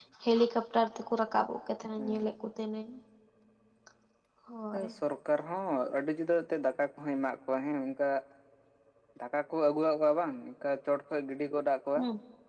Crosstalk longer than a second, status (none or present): none